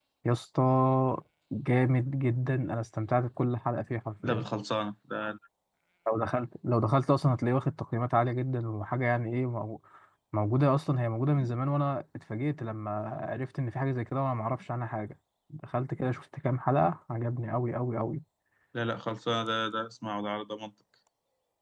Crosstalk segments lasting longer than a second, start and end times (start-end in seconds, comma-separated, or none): none